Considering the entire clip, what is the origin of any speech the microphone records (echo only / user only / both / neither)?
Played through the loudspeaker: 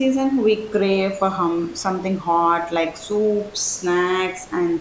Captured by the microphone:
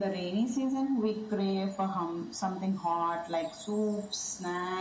echo only